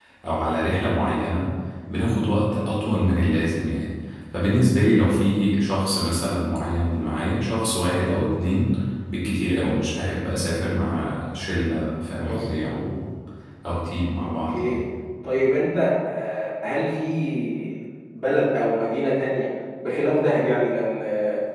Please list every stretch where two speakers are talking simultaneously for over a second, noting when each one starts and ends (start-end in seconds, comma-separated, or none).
none